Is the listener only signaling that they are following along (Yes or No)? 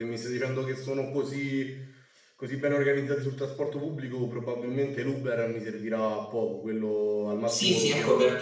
No